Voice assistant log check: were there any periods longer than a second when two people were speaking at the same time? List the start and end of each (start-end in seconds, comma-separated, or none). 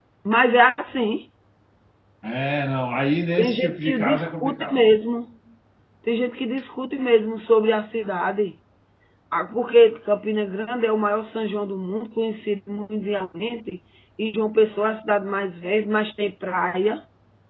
3.4-4.8